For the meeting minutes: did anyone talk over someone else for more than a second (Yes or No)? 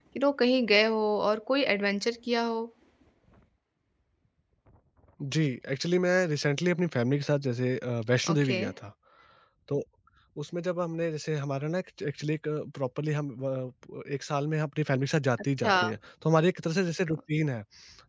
No